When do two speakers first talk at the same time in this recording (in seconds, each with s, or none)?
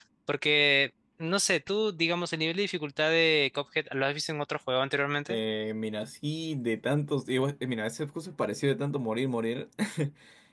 none